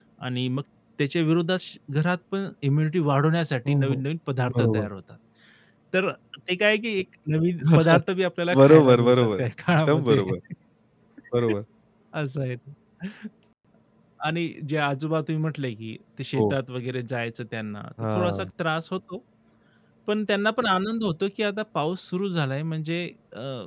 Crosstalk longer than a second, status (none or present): present